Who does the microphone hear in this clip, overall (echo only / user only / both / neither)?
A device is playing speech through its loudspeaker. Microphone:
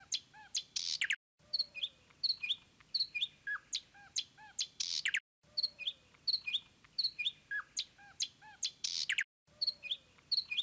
neither